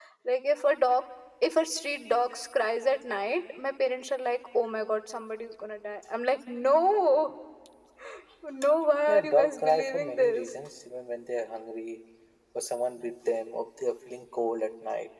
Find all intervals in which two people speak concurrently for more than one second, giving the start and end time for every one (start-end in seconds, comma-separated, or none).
9.1-10.4